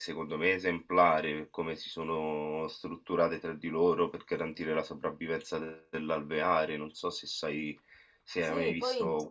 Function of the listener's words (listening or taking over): taking over